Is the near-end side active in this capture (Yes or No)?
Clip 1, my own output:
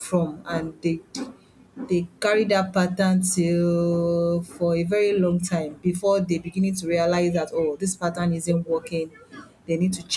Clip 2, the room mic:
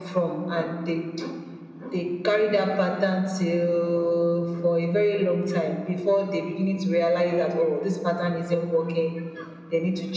No